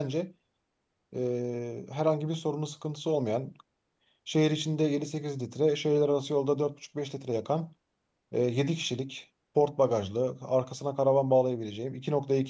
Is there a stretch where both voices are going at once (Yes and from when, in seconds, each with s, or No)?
No